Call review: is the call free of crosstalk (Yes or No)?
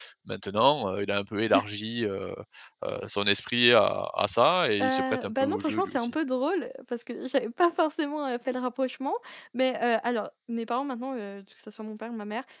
No